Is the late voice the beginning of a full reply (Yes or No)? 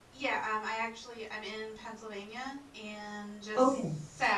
No